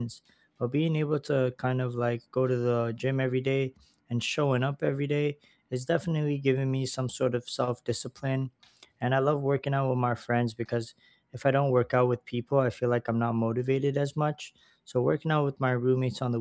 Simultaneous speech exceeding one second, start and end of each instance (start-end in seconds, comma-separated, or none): none